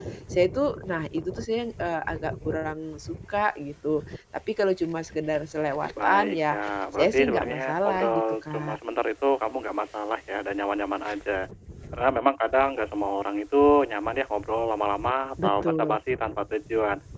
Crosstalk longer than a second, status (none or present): present